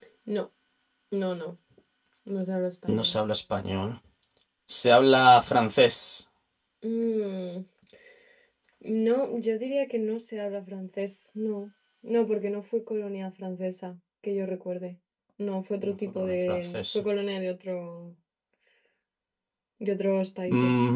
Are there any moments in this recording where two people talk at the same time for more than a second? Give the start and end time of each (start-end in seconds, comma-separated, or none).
15.8-17.0